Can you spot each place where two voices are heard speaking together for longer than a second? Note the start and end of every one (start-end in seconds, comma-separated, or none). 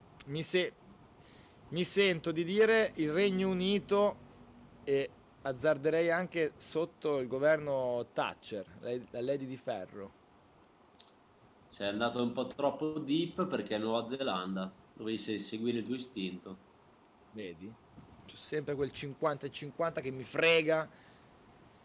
none